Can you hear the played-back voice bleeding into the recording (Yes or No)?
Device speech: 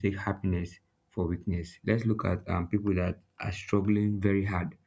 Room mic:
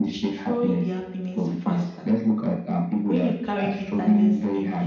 Yes